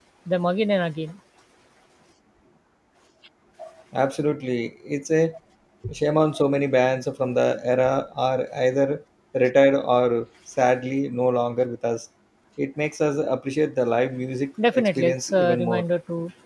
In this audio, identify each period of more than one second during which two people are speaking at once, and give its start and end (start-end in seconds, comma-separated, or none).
14.6-15.8